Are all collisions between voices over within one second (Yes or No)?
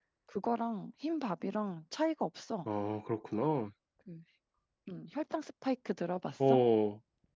Yes